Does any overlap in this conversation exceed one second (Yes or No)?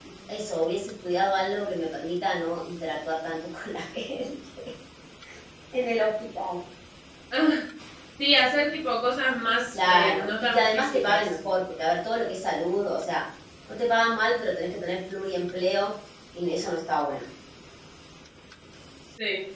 Yes